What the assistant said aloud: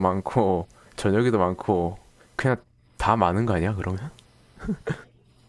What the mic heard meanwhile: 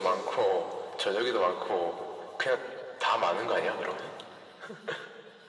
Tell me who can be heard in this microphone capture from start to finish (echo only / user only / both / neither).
echo only